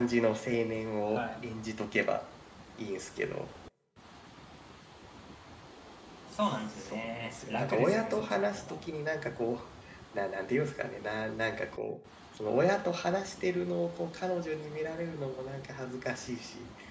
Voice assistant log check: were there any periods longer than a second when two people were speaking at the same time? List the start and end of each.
6.9-8.8

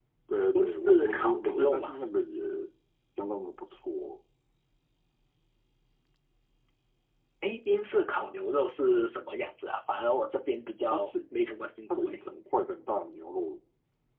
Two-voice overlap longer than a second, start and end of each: 0.6-1.9

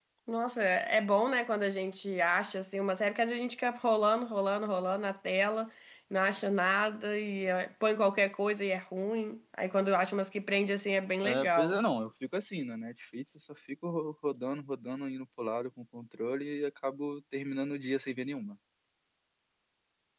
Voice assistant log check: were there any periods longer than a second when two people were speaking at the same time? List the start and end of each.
none

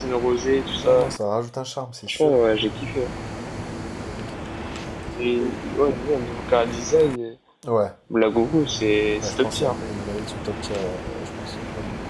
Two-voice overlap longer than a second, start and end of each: none

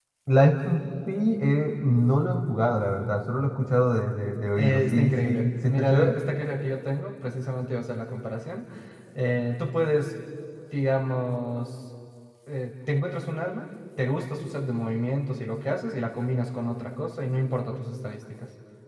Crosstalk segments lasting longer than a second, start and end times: 4.6-6.1

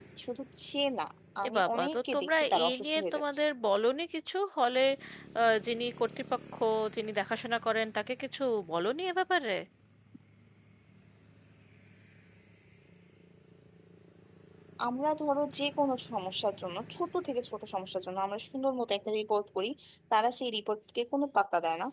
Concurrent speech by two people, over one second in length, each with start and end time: 1.4-3.4

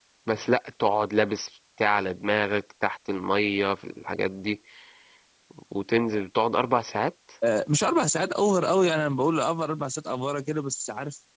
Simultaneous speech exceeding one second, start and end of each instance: none

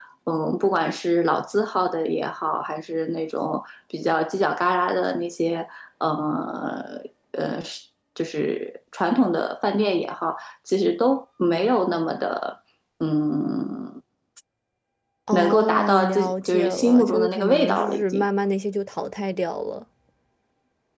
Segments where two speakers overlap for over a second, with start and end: 15.3-18.3

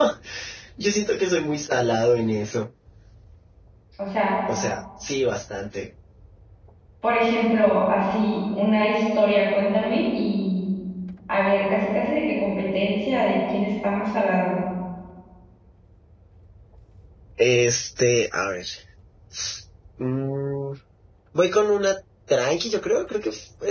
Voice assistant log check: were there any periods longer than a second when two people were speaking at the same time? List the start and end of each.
none

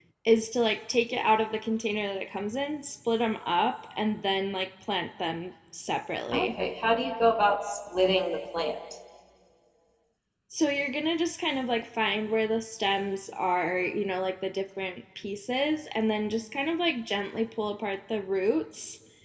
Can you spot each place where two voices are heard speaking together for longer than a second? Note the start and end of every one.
none

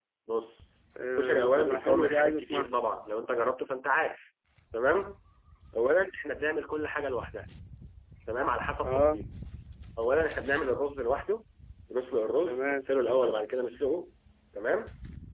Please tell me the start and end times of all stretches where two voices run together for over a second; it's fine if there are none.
1.2-2.7

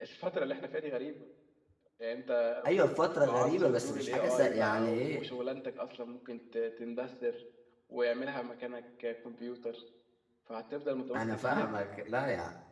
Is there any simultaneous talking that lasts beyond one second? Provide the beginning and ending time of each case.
3.3-5.2

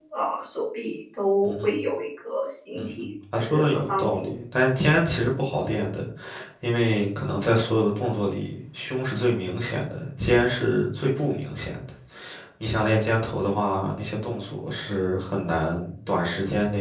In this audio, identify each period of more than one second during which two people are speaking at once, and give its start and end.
2.8-4.3

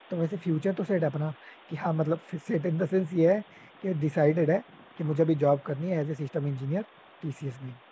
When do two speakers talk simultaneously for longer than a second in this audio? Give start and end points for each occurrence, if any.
none

